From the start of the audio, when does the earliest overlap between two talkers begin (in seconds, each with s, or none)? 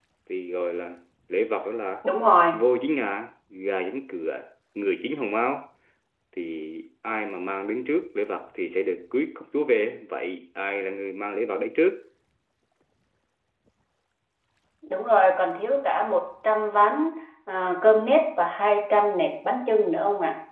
none